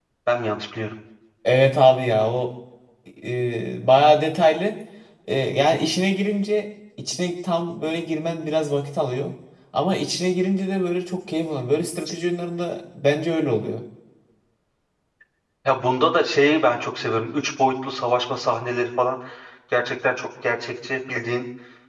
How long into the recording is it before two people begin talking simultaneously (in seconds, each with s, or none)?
none